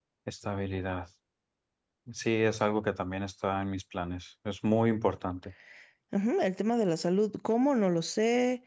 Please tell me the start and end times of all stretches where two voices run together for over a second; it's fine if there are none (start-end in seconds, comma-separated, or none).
none